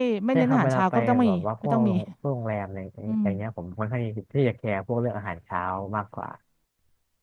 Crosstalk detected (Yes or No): Yes